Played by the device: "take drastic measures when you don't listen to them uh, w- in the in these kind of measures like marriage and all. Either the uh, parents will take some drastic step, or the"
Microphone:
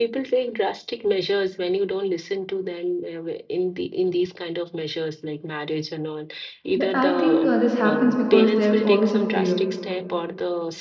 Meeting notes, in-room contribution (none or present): present